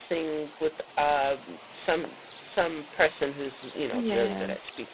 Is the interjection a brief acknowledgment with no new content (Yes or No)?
Yes